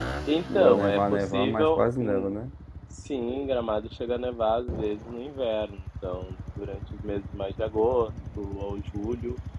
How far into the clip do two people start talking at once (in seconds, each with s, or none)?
0.5 s